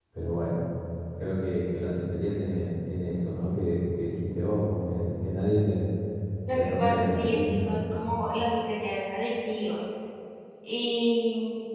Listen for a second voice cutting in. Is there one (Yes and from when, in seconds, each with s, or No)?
Yes, from 6.5 s